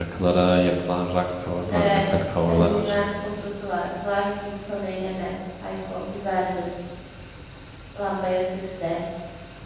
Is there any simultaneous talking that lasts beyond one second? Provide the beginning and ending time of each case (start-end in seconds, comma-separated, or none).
1.7-2.9